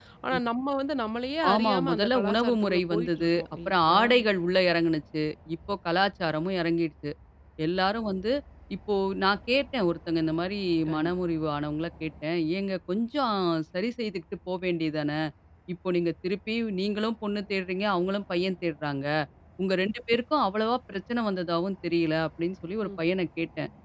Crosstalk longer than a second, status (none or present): present